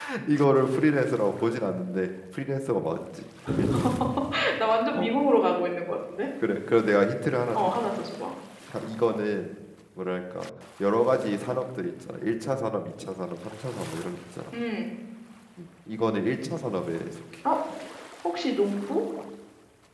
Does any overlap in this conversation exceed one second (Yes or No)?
No